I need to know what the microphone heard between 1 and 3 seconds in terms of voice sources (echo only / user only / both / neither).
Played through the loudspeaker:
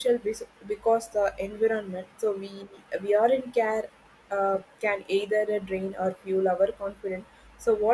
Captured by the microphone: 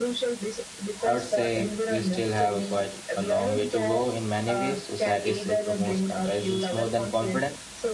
both